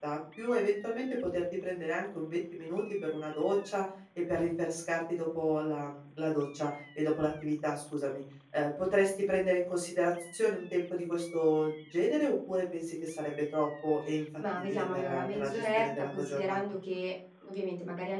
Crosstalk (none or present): present